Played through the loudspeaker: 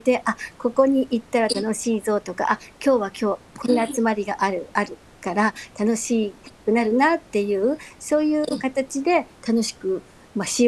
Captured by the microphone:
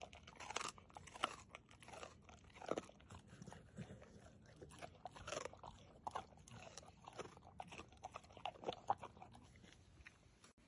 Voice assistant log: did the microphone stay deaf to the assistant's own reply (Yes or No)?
Yes